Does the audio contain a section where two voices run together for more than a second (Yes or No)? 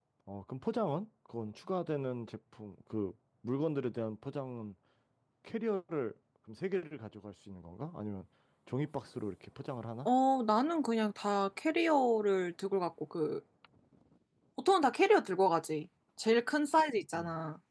No